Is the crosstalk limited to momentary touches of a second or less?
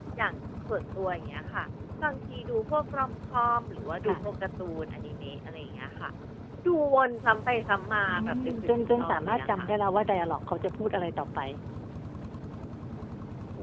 No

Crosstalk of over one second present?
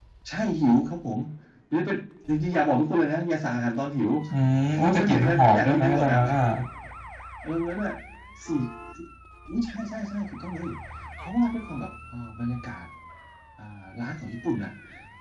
Yes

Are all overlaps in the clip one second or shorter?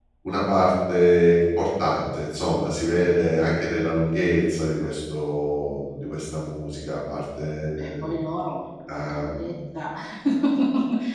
Yes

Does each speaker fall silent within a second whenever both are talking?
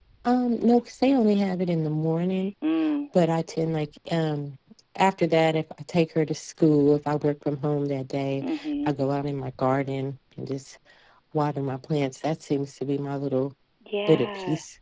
Yes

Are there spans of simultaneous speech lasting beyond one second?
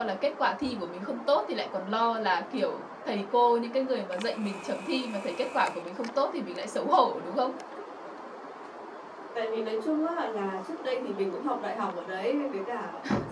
No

